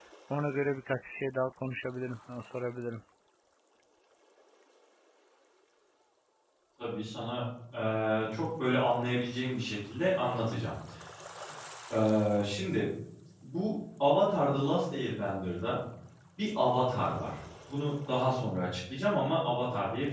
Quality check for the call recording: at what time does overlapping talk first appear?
none

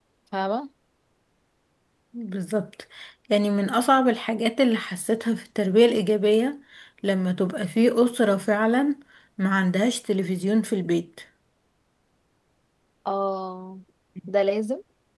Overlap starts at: none

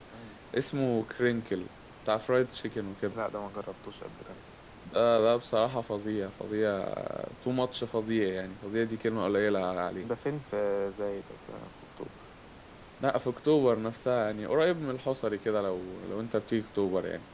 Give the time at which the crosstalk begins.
none

